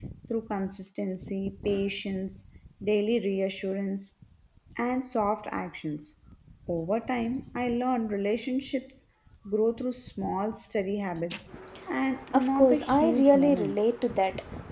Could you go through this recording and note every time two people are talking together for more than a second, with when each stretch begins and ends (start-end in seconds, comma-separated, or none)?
12.3-13.9